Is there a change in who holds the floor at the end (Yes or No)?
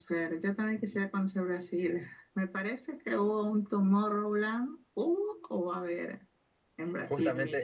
Yes